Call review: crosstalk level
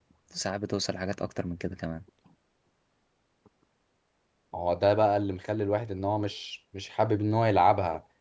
none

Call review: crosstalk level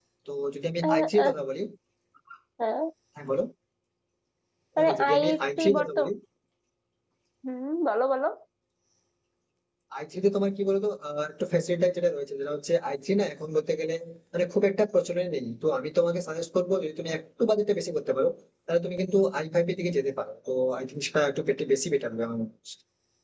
present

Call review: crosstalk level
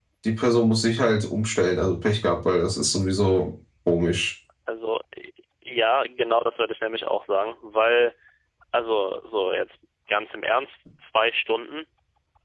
none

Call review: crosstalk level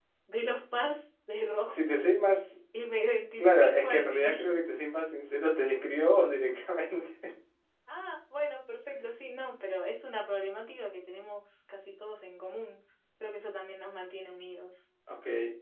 present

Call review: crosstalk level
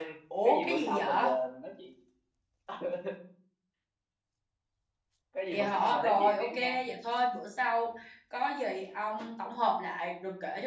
present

